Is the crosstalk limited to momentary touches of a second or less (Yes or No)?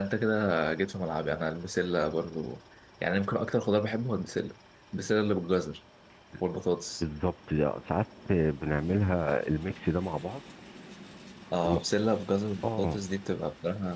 Yes